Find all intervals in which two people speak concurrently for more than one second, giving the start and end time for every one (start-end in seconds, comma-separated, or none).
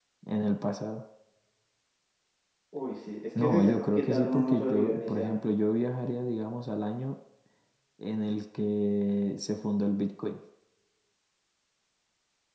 3.4-5.4